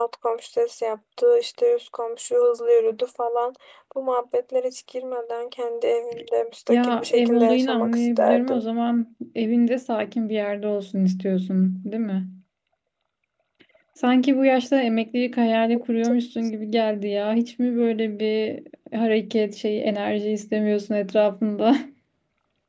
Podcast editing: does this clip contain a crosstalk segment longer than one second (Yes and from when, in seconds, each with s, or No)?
Yes, from 6.7 s